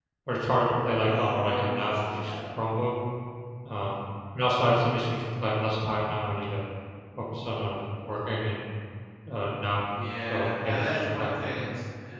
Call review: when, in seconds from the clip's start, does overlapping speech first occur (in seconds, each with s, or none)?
1.0 s